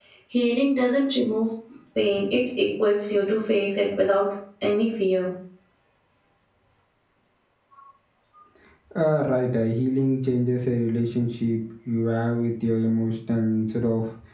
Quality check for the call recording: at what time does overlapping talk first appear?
none

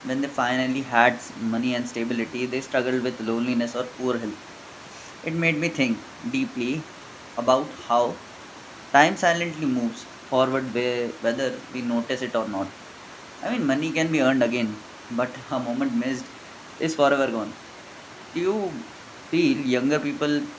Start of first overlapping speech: none

